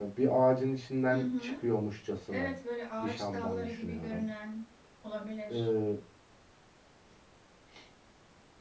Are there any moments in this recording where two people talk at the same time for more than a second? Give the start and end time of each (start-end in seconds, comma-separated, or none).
3.0-4.2